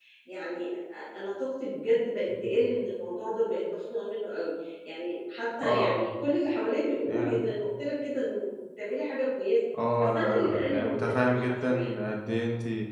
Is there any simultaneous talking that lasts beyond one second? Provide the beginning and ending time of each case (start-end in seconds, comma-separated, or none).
10.0-11.9